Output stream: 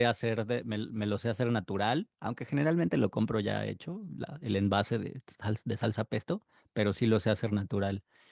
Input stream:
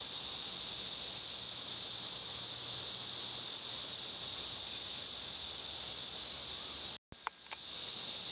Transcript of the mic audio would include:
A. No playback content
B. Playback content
A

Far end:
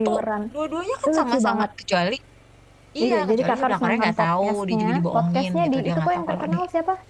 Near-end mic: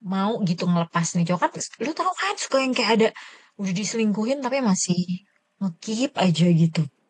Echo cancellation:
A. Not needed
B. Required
A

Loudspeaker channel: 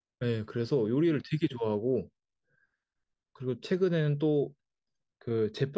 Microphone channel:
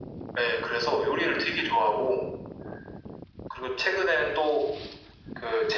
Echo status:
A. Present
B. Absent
A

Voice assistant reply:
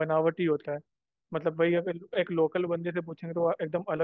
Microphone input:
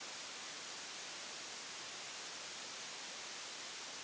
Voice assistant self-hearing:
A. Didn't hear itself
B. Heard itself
A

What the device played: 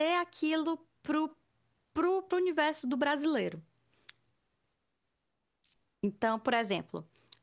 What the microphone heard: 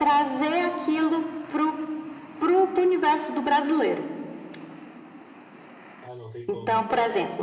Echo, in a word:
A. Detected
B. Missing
A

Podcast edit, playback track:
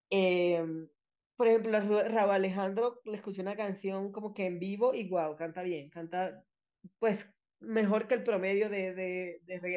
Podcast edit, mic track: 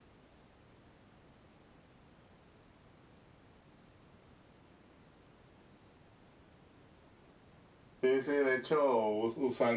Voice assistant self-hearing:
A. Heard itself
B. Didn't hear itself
B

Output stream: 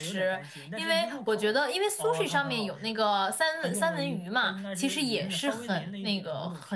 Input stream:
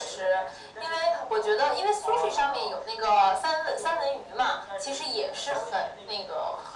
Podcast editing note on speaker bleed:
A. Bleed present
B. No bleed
A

